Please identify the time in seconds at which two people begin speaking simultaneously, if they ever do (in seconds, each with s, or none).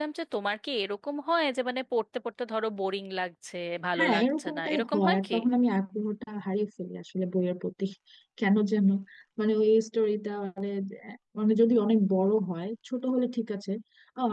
4.0 s